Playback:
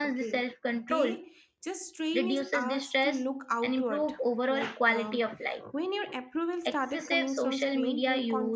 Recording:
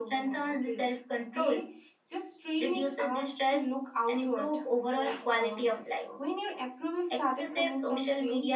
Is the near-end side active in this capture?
No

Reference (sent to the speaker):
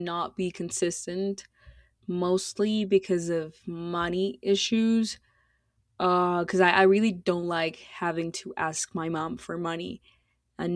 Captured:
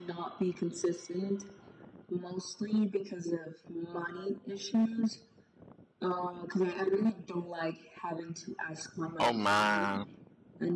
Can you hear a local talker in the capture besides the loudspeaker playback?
Yes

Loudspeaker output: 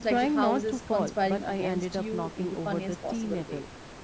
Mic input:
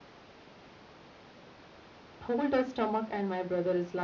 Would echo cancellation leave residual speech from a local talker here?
Yes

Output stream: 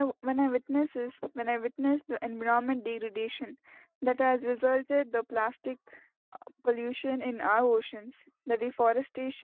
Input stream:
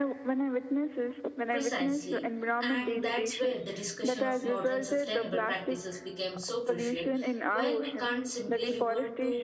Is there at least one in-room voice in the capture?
Yes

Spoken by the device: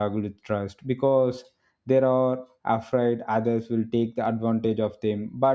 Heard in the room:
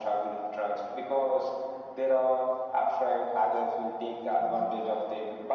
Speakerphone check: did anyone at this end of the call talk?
No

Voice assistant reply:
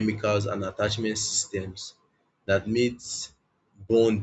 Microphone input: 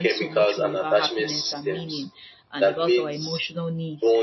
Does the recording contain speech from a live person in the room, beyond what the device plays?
Yes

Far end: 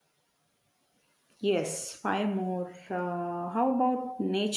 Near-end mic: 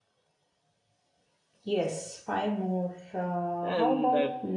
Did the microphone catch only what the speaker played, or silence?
No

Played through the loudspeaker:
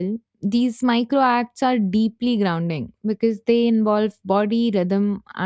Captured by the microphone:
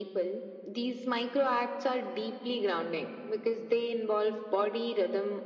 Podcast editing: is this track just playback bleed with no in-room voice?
Yes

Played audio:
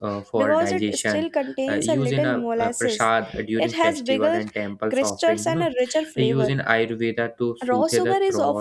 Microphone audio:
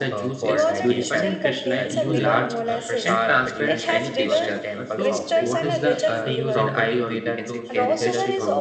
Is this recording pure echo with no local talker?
No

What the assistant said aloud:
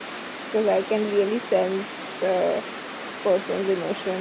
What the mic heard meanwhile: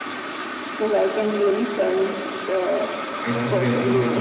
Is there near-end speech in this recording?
Yes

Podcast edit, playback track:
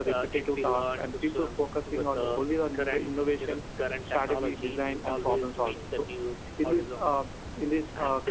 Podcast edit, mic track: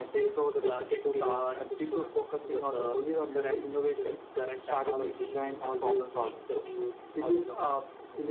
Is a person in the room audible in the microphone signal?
No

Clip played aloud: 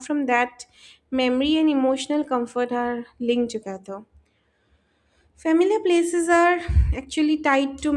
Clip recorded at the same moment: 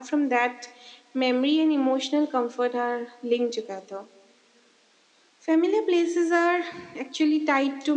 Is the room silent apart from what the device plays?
Yes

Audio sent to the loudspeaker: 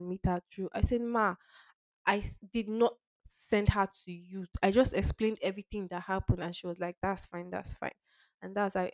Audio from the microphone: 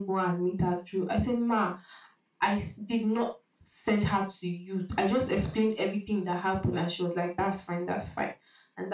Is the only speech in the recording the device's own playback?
Yes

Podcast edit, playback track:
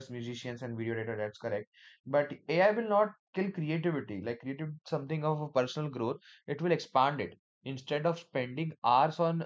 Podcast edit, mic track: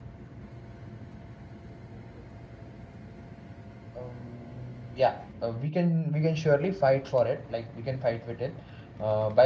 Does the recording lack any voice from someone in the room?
No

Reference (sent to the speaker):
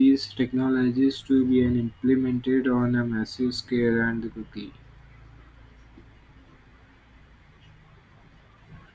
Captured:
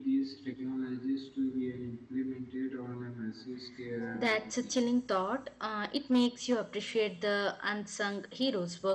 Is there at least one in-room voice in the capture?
Yes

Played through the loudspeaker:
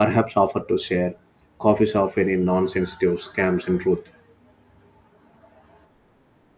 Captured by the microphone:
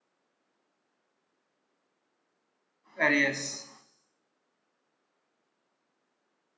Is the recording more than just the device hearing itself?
Yes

